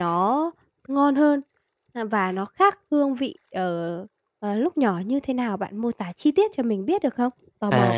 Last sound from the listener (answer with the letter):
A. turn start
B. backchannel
A